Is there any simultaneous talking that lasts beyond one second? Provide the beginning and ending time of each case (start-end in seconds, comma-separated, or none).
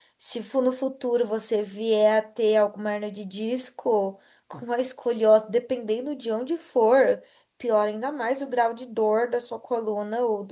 none